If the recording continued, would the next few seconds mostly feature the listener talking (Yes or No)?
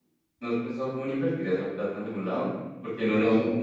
No